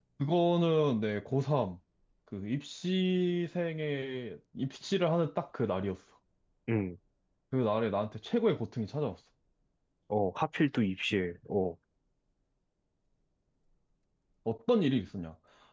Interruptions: none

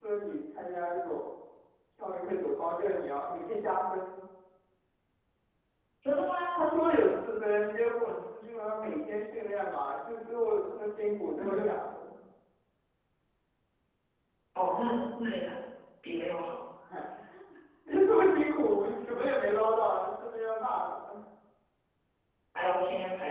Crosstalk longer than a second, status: none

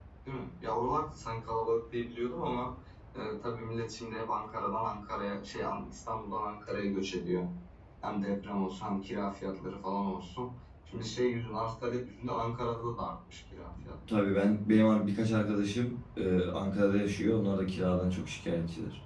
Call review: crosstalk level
none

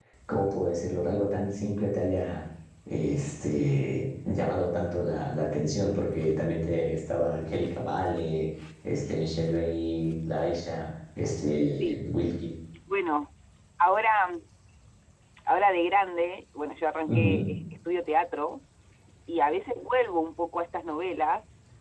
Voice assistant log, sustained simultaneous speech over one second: none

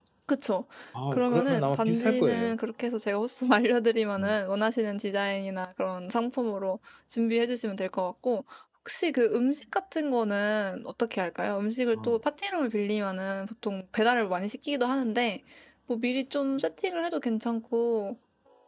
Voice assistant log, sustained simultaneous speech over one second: present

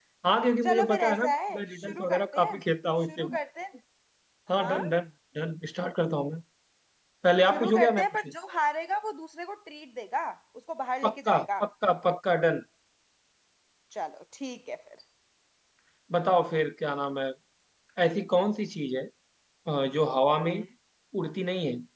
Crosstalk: present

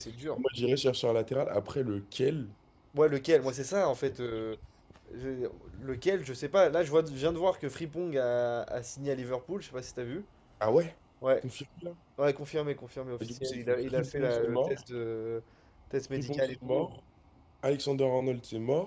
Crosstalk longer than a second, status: present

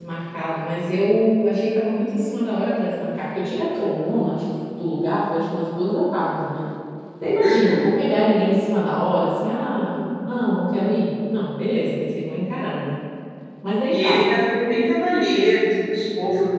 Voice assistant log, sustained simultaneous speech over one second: none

